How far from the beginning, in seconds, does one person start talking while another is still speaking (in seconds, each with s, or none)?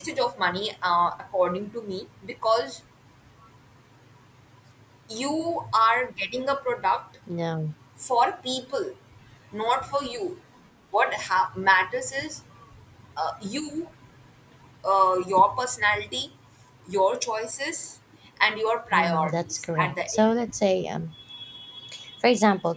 18.9 s